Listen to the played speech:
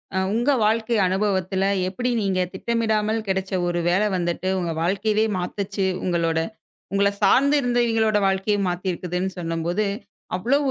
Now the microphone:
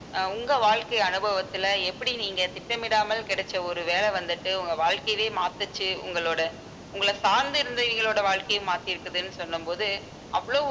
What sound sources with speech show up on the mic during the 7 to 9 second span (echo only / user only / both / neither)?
echo only